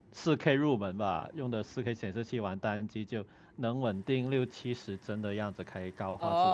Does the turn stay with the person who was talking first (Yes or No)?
No